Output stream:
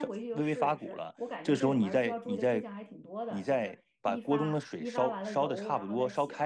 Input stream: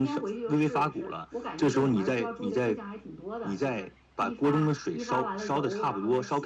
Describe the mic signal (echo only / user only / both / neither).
echo only